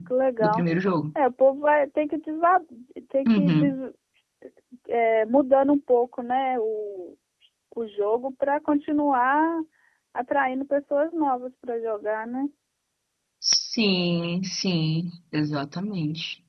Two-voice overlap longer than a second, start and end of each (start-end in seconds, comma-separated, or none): none